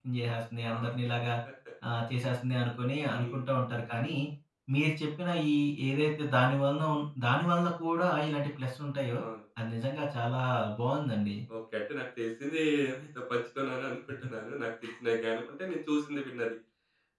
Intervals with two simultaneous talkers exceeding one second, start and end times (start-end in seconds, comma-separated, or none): none